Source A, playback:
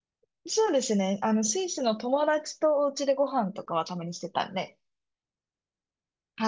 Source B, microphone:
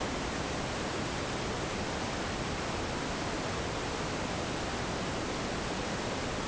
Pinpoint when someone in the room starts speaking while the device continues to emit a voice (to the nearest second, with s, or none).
none